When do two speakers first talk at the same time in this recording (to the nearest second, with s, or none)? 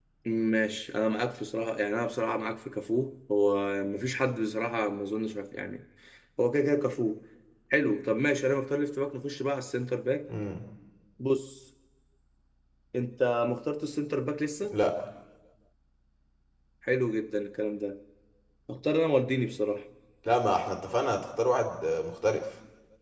none